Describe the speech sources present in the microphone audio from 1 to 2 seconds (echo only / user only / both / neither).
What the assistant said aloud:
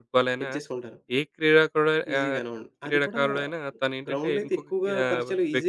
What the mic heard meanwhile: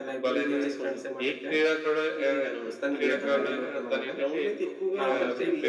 both